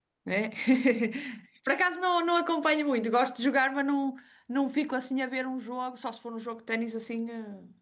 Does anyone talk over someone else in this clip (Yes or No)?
No